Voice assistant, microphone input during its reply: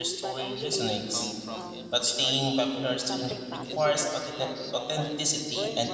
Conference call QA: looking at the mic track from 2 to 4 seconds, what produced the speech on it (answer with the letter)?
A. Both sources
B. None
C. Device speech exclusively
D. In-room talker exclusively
A